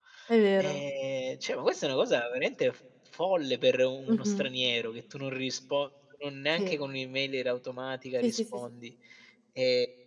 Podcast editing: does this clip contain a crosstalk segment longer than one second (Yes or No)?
No